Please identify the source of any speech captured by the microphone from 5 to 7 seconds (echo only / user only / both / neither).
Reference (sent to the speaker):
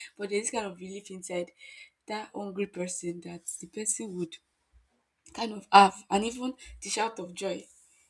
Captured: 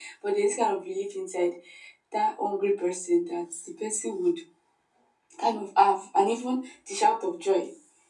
echo only